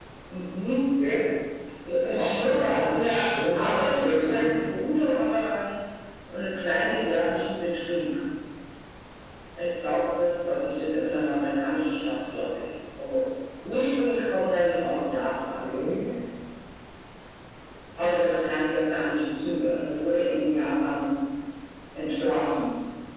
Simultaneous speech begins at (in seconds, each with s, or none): 2.0 s